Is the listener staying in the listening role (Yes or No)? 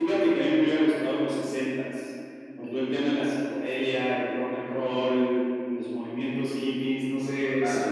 Yes